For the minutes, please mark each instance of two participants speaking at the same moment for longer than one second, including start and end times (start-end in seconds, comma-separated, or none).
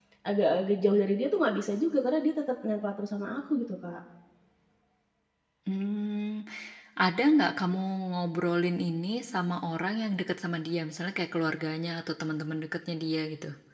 none